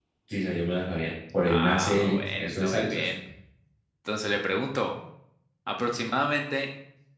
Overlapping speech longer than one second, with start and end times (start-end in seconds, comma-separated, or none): 1.4-3.1